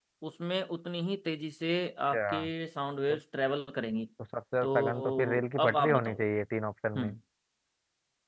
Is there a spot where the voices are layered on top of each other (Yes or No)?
Yes